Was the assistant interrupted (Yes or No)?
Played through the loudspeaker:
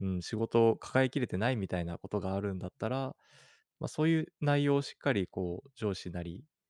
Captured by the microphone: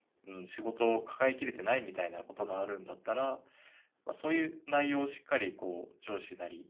No